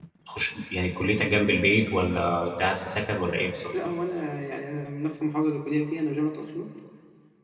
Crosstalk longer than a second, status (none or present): none